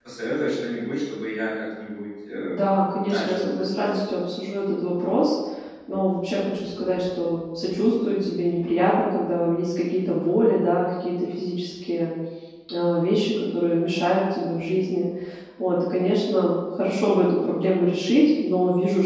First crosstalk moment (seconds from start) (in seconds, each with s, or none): 2.4 s